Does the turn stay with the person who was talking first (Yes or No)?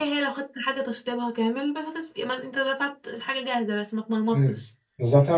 No